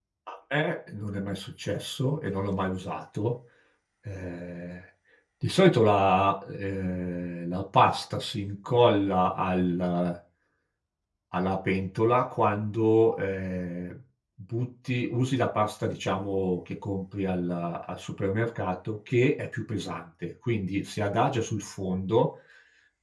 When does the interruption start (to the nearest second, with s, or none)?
none